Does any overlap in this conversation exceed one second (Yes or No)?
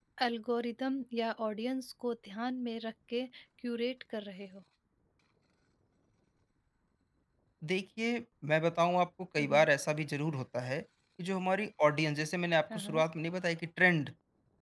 No